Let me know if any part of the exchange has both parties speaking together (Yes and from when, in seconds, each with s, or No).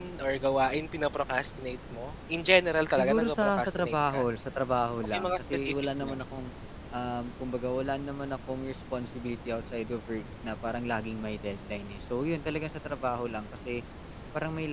Yes, from 3.0 s